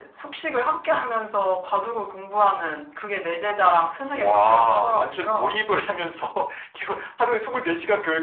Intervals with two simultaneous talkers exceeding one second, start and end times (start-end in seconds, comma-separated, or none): 4.1-5.6